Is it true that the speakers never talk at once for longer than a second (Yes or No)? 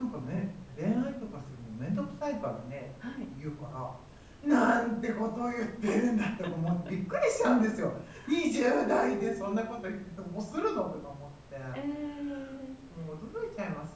No